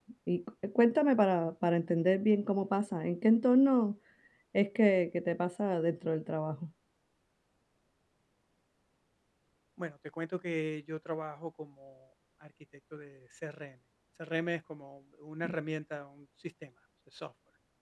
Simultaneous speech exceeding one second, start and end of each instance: none

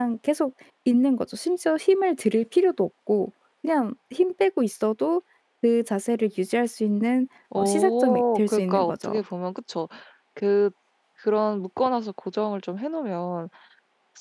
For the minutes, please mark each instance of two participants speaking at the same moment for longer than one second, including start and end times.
7.6-9.1

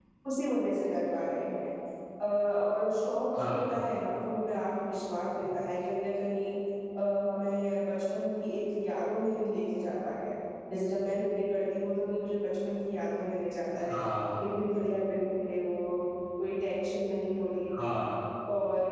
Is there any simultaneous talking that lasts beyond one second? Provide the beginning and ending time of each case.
none

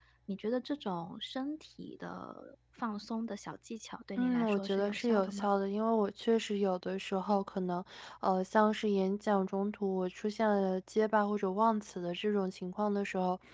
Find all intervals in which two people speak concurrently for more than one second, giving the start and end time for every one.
4.2-5.5

